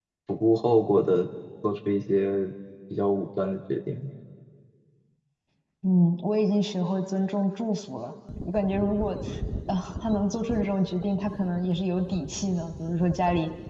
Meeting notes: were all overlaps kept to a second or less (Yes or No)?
Yes